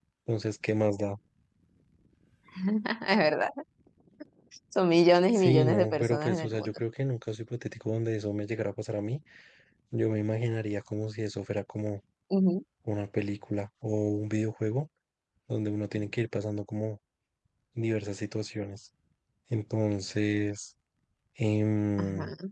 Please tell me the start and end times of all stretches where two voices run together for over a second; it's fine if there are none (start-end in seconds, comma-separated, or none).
5.3-6.7